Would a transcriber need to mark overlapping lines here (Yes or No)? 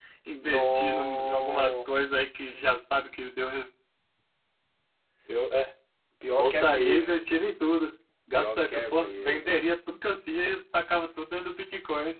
Yes